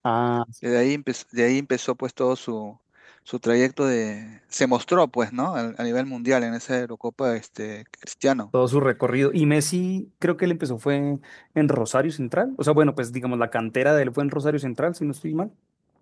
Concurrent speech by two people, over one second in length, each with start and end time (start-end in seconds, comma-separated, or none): none